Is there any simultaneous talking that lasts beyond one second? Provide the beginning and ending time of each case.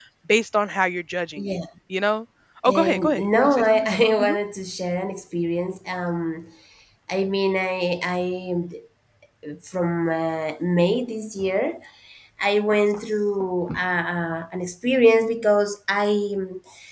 2.6-4.3

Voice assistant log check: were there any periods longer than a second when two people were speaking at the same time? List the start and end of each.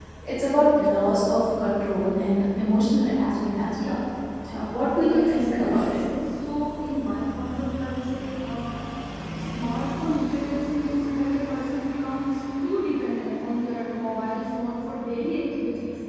4.5-6.0

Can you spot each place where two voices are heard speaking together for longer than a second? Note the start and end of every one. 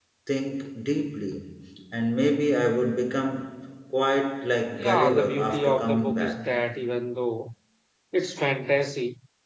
4.8-6.3

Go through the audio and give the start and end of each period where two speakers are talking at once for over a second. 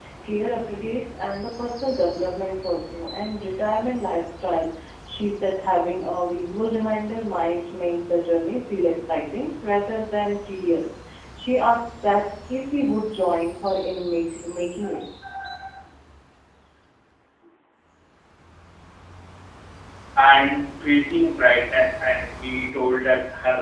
none

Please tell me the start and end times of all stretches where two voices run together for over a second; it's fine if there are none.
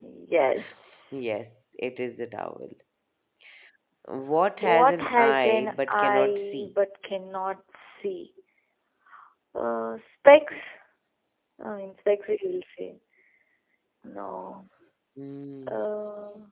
4.6-6.7

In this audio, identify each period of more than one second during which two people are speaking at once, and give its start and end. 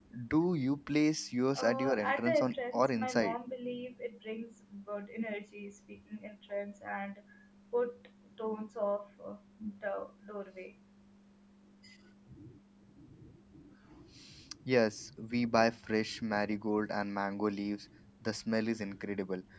1.6-3.4

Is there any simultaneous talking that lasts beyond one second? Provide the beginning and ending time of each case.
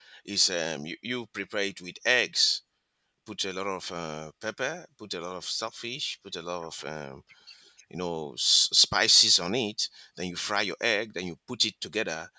none

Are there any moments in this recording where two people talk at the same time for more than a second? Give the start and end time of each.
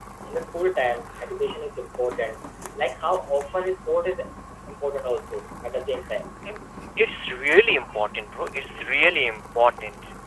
none

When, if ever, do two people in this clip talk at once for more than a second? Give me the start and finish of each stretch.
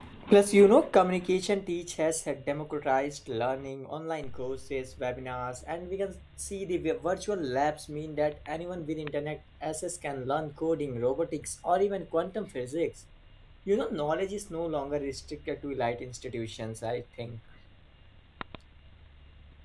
none

